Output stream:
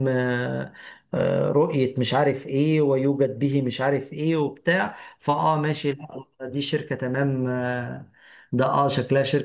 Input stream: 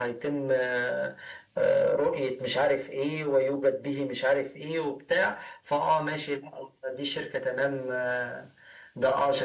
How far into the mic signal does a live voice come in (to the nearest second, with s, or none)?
none